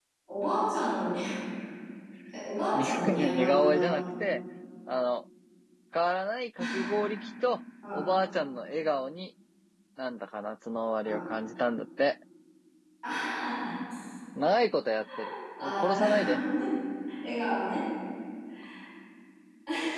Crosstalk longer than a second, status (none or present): present